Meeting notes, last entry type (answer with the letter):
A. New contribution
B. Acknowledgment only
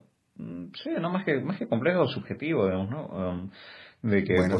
B